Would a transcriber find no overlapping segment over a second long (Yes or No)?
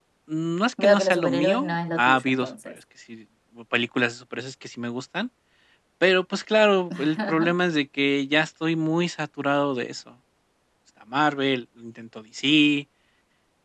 No